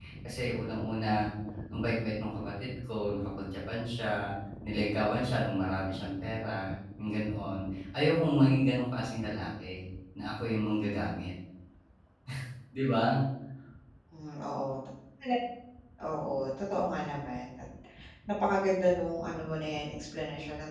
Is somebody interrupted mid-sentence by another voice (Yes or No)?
No